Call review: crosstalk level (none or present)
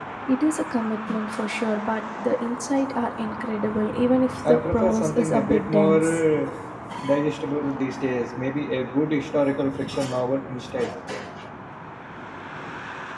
present